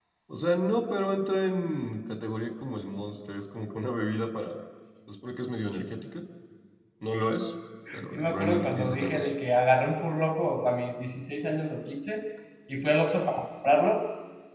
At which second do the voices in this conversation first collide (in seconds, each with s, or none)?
7.9 s